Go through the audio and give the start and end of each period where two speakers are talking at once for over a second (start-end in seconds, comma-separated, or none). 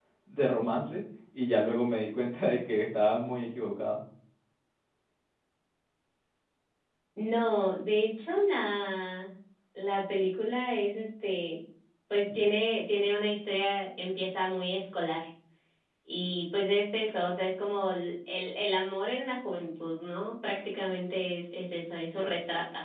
none